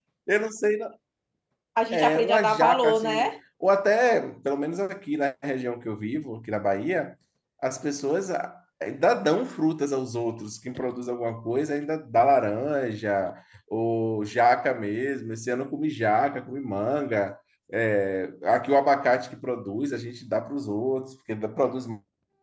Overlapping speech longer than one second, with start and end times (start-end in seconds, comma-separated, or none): 1.9-3.3